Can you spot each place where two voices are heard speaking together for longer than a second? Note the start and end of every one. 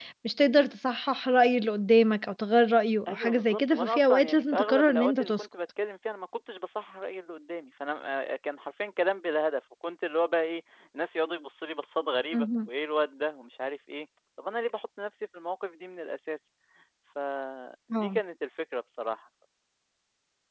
3.1-5.5

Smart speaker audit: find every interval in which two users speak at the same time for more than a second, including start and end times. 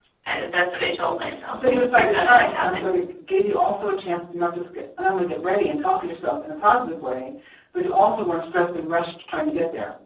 1.5-2.9

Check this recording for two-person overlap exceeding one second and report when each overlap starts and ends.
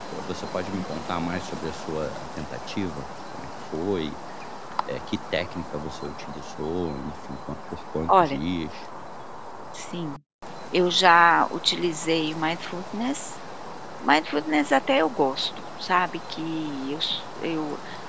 none

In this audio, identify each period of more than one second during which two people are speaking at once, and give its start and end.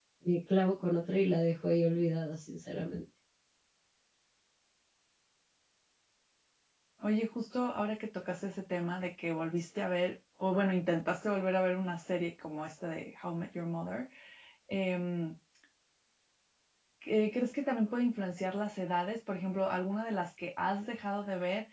none

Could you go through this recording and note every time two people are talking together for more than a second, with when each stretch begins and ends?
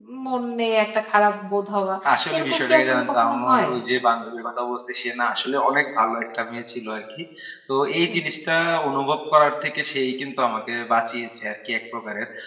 2.4-3.7

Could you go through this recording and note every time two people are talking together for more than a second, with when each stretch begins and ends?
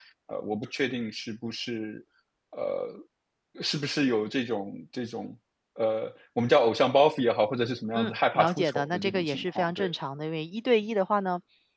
7.9-9.9

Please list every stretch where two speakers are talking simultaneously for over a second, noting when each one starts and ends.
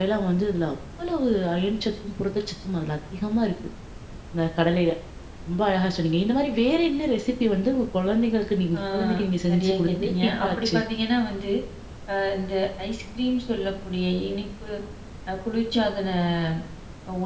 9.5-10.8

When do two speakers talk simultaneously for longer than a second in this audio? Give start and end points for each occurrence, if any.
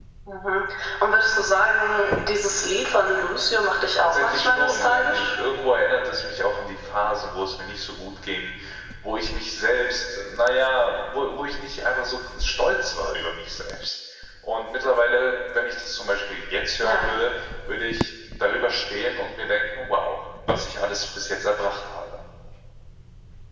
4.0-5.3

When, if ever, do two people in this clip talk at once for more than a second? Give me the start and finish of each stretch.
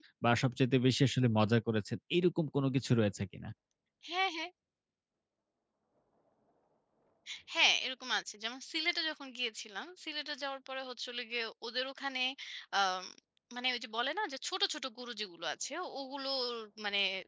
none

